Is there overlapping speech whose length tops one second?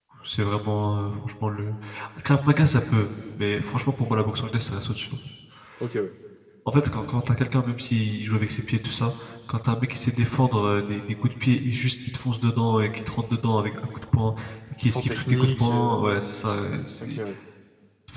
Yes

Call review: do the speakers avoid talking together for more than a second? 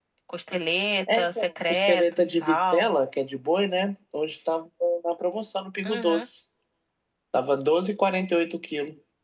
No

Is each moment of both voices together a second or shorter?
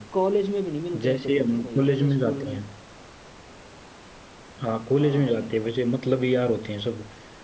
No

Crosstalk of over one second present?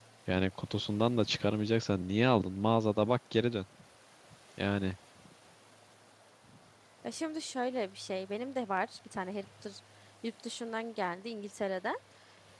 No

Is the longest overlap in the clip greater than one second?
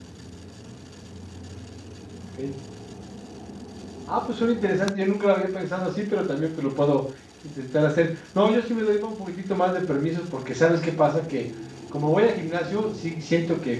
No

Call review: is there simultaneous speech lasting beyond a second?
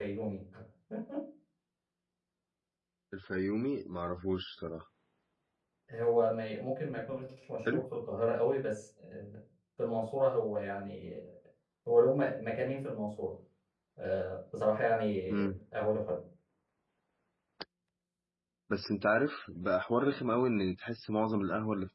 No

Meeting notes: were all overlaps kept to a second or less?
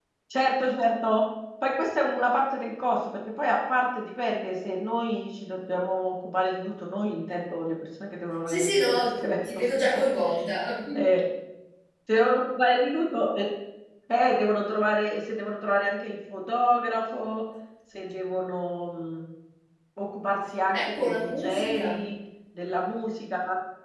No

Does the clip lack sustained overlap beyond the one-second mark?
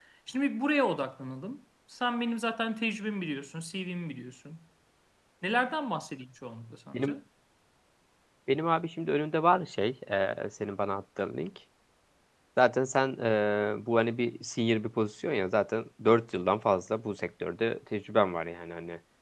Yes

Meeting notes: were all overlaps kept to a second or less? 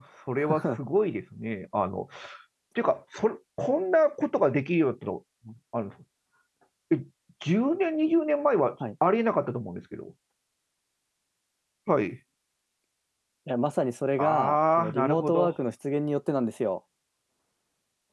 No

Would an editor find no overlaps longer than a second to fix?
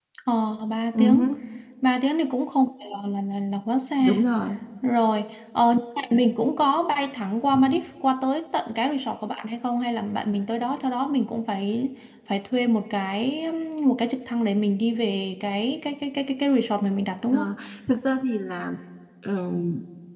Yes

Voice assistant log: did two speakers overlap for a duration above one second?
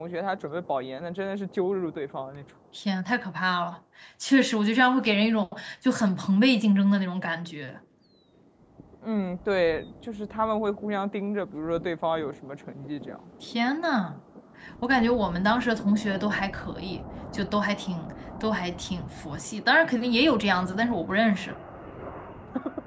No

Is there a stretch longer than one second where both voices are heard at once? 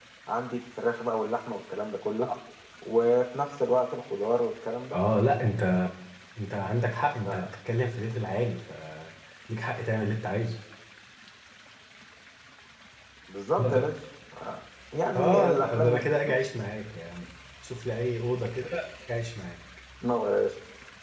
Yes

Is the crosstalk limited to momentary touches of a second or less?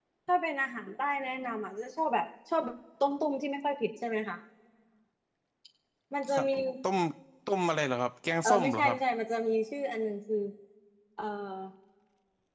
Yes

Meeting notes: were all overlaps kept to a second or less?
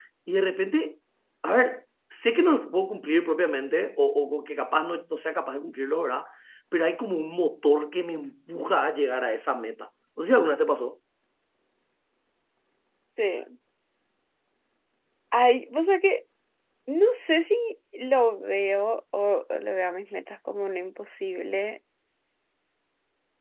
Yes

